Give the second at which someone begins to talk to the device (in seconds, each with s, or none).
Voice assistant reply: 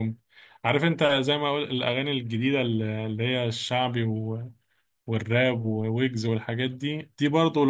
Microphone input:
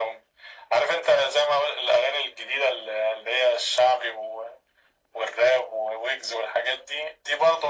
none